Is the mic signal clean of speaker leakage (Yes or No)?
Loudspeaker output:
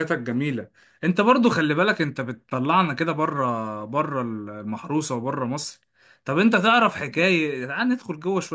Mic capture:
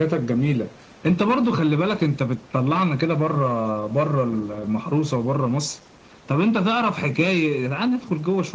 No